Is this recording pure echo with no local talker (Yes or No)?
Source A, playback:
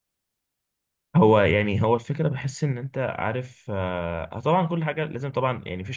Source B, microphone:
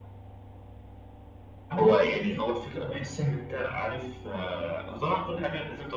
Yes